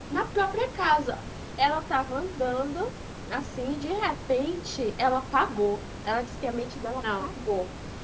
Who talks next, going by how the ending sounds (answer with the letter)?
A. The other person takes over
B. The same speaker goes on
B